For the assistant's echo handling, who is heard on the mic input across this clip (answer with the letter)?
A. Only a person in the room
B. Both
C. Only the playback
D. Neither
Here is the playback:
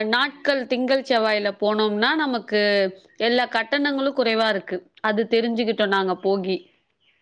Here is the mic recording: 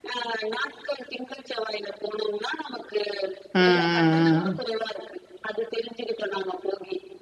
B